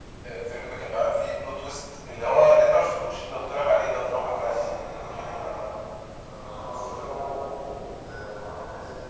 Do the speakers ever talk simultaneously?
Yes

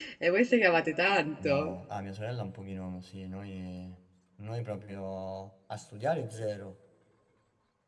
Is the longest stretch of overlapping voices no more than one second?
Yes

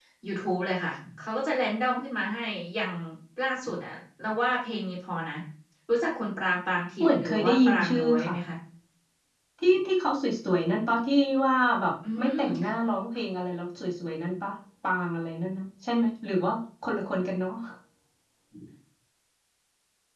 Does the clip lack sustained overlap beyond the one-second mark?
No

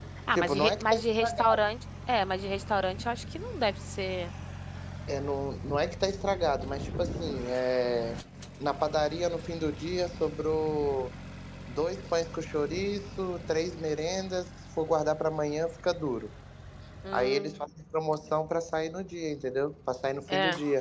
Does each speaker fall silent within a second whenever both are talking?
No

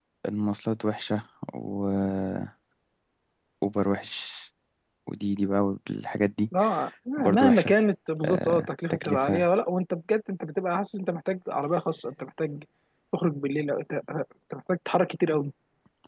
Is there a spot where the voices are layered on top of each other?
Yes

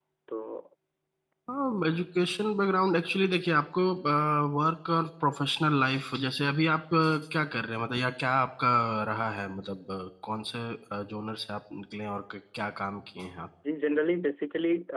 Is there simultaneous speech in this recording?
No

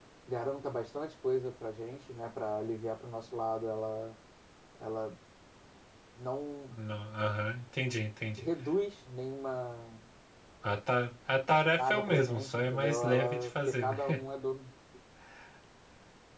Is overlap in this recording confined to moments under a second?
No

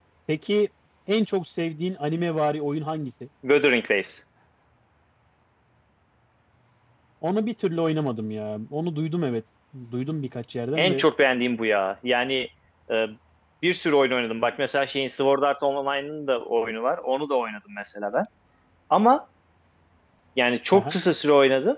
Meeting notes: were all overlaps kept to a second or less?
Yes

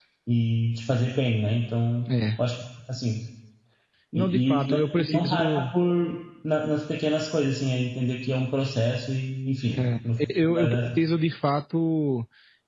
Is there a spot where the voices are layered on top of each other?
Yes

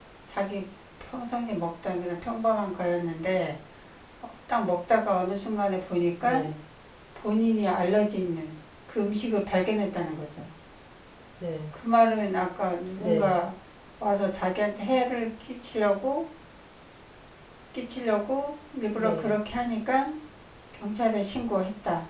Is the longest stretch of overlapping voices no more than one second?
Yes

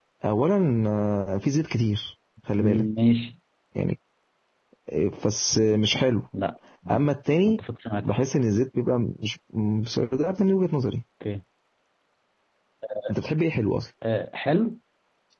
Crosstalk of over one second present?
No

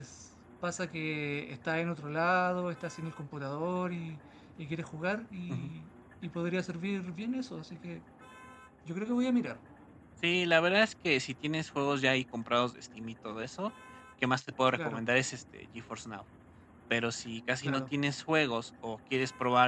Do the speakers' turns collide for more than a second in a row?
No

